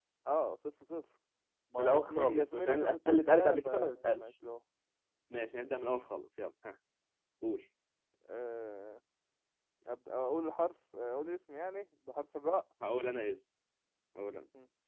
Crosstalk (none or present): present